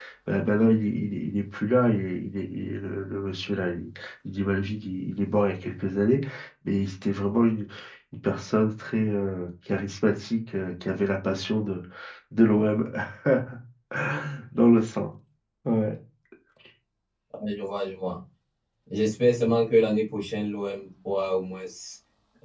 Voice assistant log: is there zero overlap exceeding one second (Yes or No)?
Yes